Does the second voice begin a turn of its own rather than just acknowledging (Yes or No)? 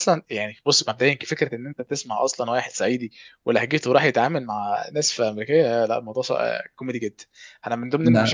No